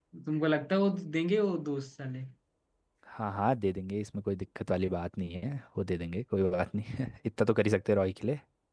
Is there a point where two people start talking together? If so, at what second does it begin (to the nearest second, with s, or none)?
none